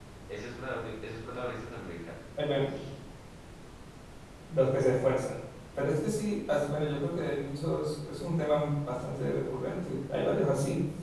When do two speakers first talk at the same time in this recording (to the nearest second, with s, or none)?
none